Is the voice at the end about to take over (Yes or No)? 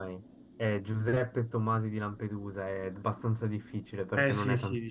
Yes